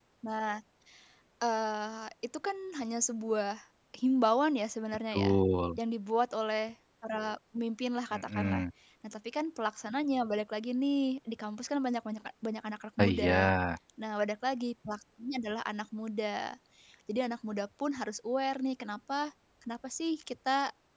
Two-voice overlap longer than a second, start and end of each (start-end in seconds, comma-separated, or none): none